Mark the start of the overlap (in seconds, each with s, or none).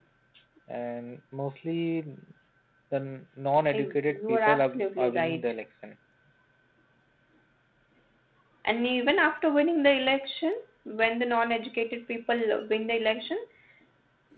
3.7 s